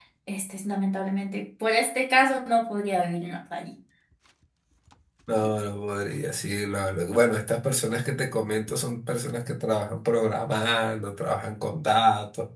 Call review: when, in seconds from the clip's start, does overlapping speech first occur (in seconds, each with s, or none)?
none